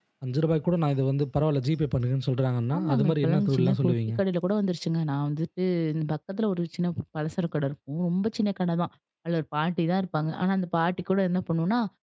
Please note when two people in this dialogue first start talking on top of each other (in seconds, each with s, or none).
2.7 s